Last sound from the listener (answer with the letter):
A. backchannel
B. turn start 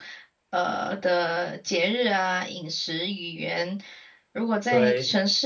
A